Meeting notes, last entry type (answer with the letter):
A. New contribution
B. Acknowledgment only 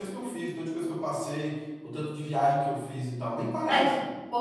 A